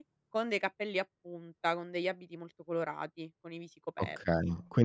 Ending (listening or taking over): taking over